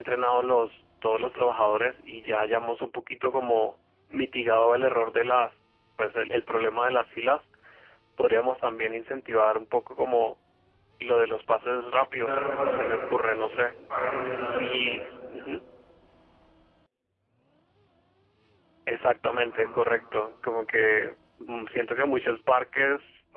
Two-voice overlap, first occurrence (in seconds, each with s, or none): 12.2 s